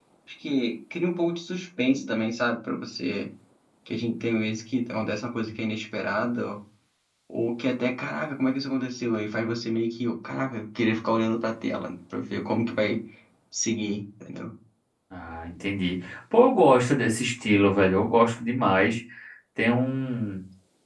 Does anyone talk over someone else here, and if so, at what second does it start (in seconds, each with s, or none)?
none